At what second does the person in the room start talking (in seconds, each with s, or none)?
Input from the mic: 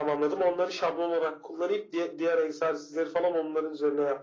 none